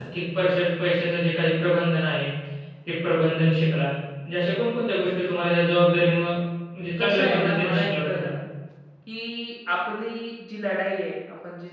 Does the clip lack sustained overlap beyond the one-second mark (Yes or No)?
No